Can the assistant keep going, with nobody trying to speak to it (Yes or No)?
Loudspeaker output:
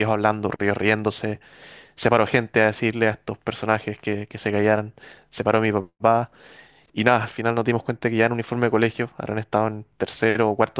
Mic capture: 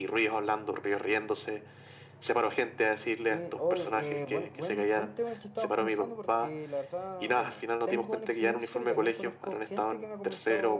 No